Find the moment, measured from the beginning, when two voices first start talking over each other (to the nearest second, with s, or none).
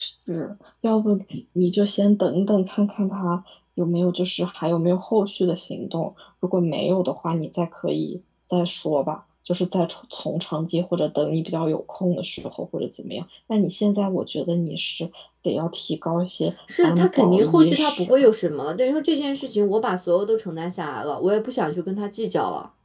17 s